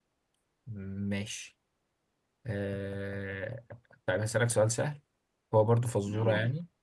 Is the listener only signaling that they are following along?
Yes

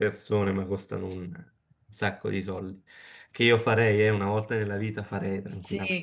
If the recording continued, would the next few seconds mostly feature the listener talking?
Yes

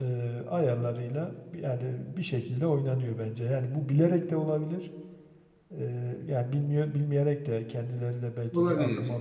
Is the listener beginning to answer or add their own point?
No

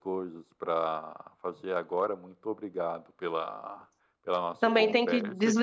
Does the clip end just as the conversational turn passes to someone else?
Yes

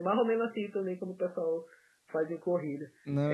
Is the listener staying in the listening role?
Yes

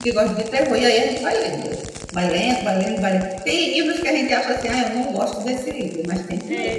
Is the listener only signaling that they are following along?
No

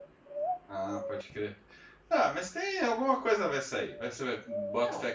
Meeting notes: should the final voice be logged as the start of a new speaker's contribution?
No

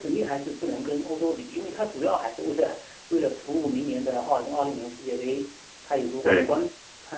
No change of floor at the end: Yes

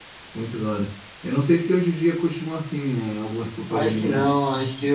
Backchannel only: No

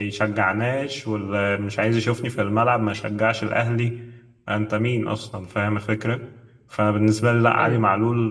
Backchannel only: Yes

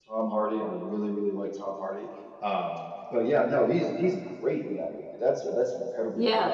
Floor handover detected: Yes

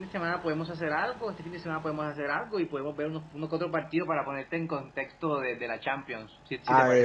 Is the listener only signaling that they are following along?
No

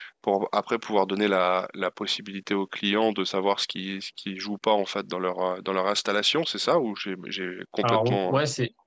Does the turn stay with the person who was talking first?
No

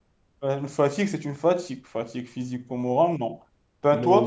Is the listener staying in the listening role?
No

